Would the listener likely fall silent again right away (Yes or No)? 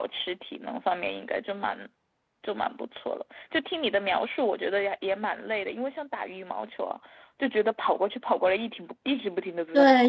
No